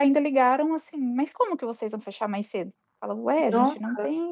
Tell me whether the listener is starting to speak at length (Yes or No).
No